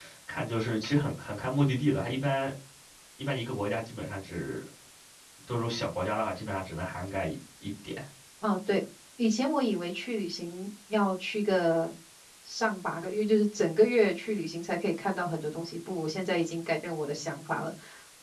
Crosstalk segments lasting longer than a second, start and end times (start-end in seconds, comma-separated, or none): none